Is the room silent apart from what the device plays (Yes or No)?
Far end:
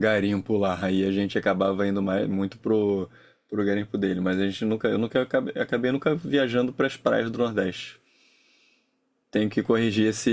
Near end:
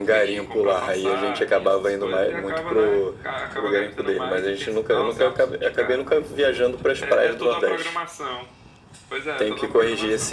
No